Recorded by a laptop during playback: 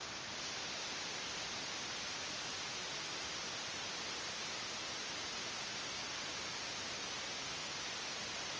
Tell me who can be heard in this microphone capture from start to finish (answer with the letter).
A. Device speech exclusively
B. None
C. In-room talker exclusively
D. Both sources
B